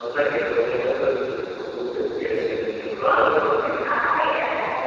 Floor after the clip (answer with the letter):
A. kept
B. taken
B